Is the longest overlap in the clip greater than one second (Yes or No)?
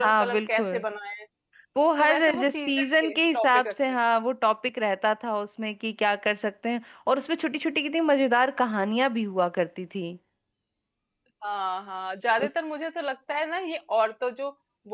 Yes